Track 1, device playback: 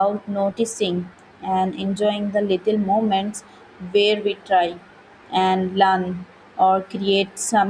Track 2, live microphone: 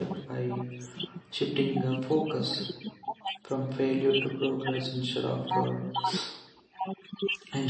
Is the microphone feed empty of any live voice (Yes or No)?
No